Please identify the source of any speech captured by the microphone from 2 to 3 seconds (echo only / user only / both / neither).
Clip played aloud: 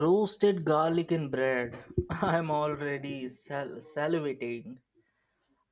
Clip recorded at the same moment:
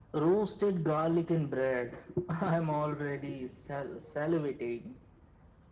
echo only